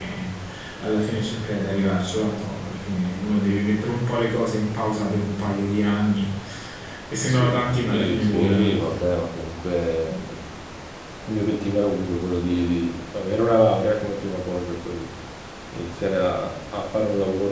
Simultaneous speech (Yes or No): Yes